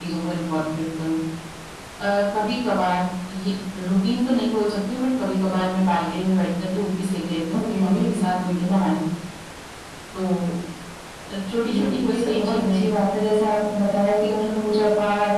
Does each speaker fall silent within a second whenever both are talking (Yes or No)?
No